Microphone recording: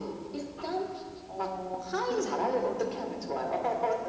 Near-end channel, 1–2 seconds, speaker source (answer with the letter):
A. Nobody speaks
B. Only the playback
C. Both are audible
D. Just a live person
B